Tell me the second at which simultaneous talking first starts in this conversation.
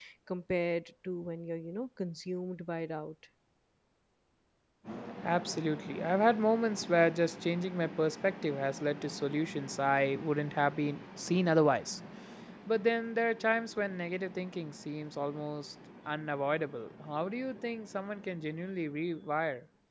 none

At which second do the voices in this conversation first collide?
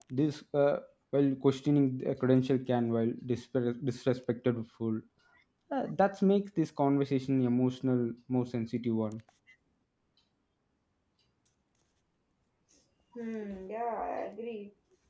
none

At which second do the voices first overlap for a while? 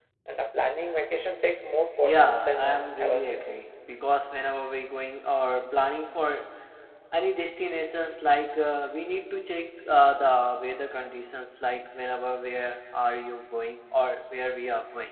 2.0 s

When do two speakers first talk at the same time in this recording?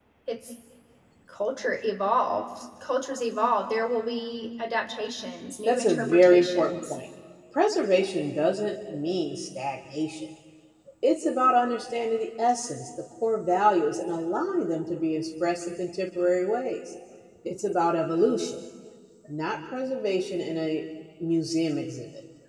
5.7 s

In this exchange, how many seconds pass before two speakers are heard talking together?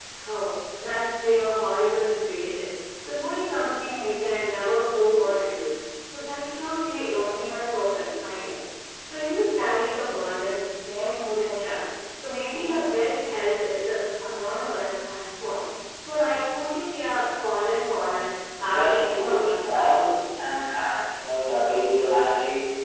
18.6 s

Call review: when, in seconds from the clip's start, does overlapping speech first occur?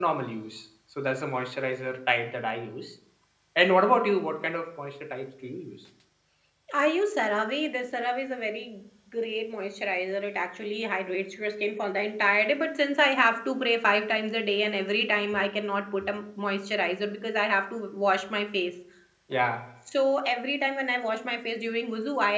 none

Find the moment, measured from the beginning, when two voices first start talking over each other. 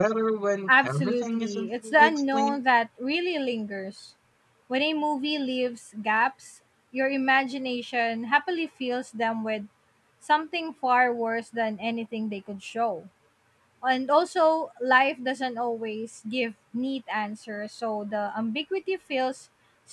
0.7 s

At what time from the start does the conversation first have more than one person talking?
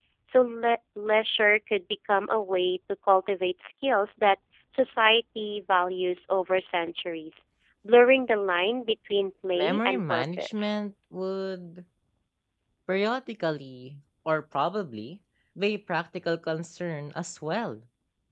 9.6 s

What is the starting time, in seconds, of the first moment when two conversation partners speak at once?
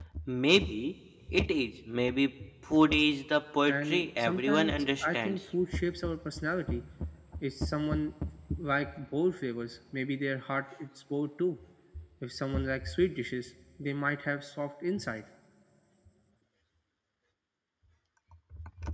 3.7 s

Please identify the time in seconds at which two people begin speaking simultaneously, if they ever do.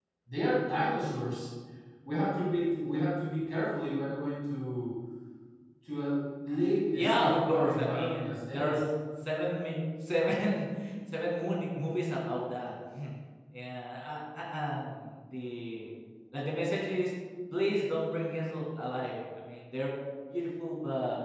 6.9 s

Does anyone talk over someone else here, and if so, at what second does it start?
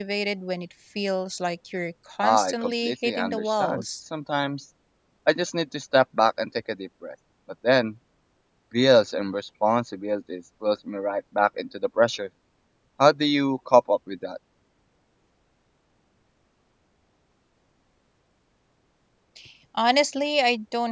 2.2 s

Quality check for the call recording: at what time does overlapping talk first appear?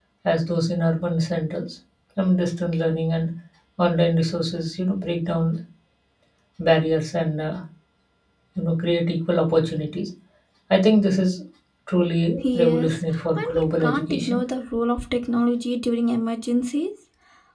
12.5 s

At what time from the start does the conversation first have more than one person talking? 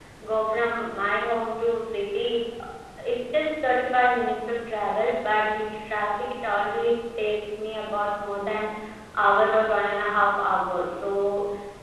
none

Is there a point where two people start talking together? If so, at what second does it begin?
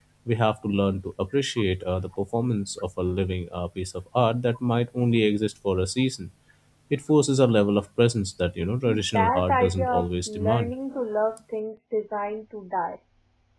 9.1 s

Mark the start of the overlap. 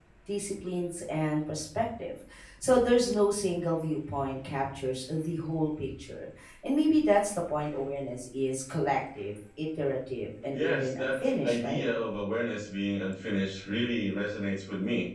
10.5 s

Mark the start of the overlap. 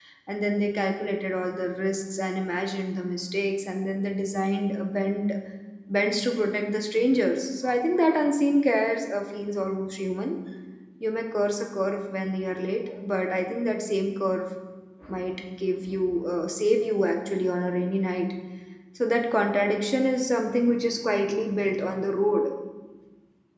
none

